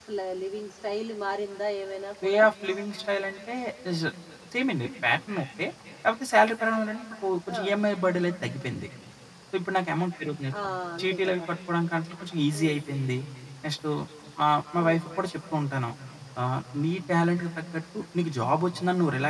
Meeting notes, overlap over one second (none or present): none